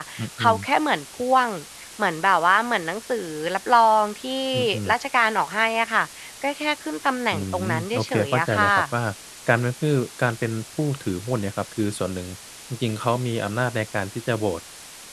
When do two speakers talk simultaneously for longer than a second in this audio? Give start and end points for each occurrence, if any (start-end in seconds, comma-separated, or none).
7.3-8.9